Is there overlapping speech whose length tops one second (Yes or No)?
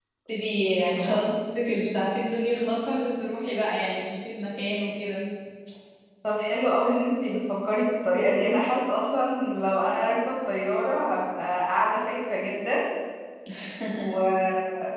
No